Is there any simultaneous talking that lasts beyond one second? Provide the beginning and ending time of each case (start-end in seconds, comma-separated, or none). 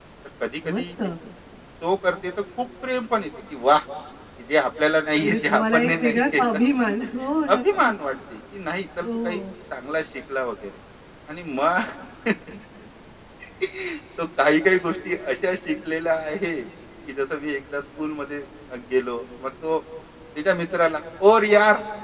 5.2-6.6